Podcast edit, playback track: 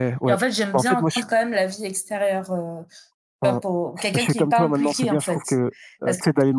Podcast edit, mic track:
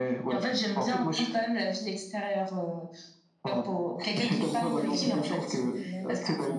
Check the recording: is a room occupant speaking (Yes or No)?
Yes